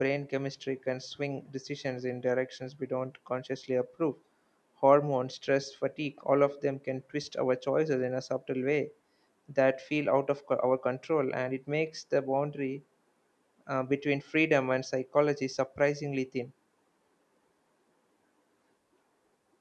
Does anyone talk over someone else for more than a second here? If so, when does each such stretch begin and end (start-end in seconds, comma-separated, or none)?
none